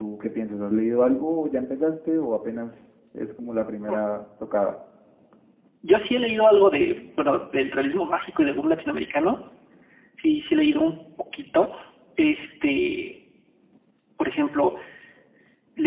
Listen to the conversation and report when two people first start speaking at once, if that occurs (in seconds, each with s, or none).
none